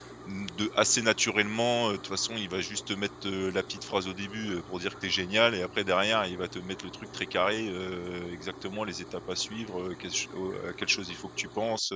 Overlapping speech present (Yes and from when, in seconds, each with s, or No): No